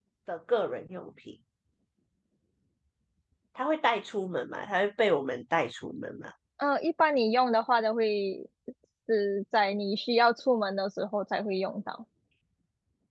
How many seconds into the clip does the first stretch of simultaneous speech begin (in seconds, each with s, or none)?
none